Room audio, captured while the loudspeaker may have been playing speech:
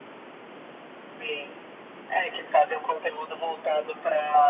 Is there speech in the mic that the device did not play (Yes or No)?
No